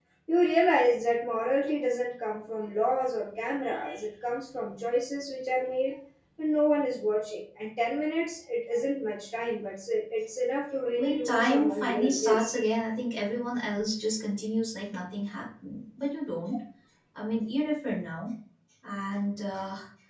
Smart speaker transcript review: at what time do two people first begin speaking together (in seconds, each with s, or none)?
10.9 s